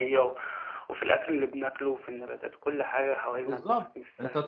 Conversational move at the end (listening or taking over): taking over